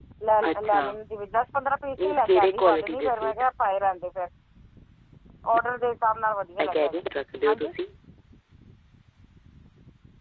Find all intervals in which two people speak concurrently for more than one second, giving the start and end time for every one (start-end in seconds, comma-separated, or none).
2.0-3.3